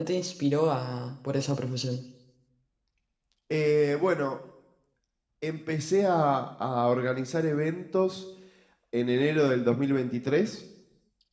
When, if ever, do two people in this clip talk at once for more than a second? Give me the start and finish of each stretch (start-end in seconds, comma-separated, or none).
none